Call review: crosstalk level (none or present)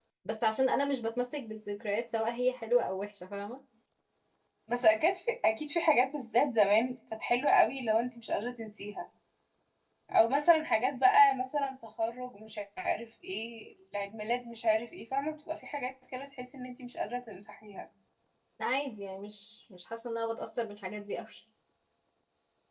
none